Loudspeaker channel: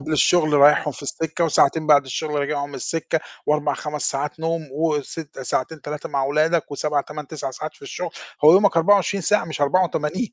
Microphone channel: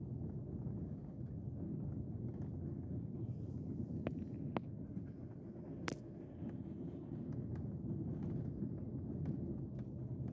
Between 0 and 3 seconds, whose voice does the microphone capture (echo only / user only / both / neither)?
neither